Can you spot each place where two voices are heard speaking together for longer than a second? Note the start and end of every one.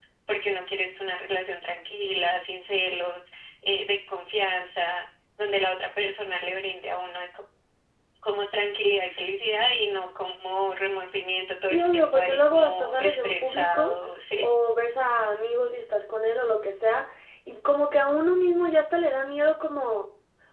11.7-14.0

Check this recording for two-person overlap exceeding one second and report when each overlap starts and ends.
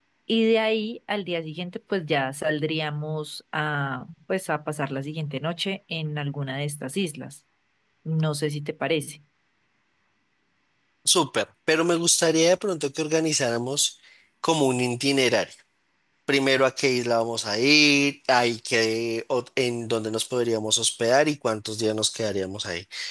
none

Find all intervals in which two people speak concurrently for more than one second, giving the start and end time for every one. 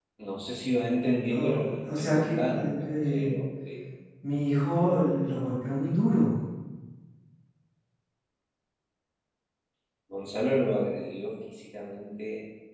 1.3-3.4

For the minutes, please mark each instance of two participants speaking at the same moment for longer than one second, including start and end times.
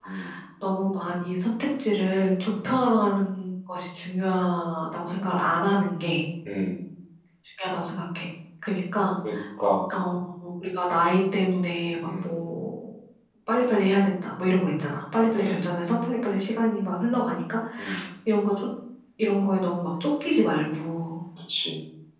none

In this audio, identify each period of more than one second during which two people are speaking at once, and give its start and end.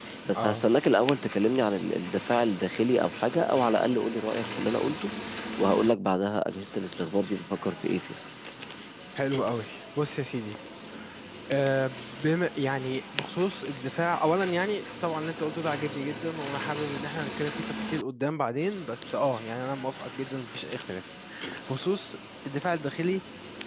none

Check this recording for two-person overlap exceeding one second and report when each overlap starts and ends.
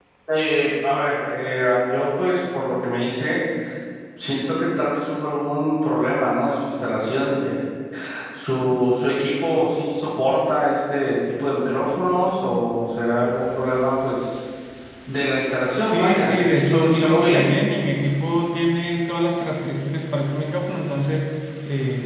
15.8-17.4

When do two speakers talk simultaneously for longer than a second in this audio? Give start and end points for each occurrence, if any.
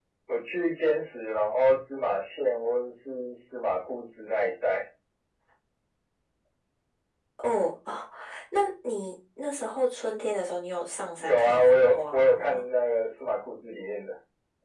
11.2-12.6

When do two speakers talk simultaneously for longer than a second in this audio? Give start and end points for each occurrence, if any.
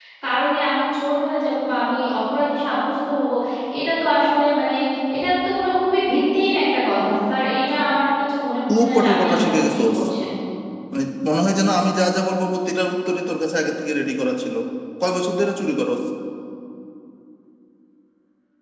8.7-10.0

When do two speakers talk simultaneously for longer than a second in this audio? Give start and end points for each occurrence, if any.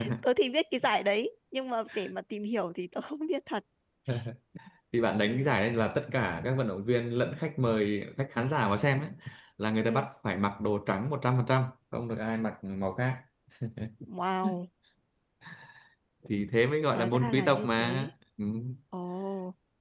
16.9-18.1

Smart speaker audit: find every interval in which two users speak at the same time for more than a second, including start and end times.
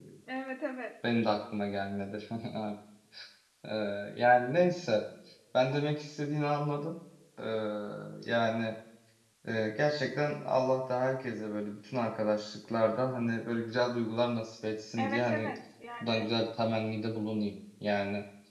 none

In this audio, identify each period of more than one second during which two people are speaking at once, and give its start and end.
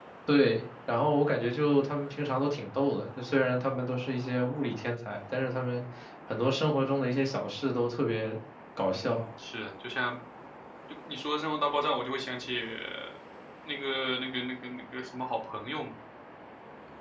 none

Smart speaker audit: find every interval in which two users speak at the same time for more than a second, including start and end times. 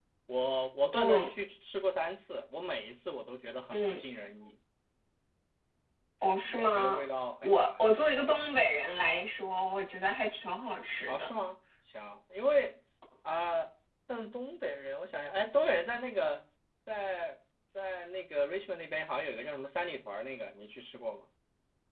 none

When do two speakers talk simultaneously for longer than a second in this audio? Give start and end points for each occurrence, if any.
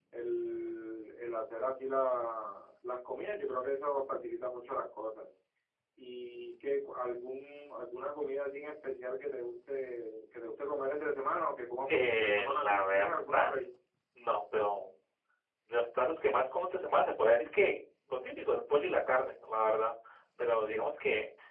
11.9-13.5

